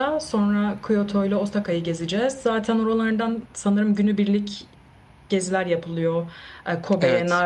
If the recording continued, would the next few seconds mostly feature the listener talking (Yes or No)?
No